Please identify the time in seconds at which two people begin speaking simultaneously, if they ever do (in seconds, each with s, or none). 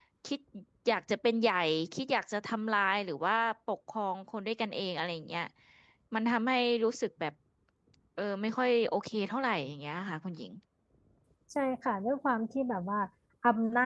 none